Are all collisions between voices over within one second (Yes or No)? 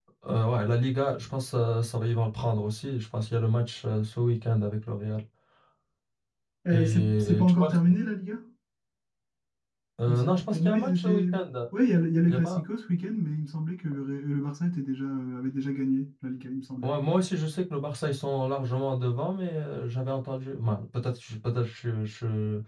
No